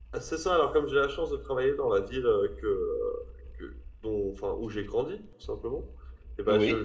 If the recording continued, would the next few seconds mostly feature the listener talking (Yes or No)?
No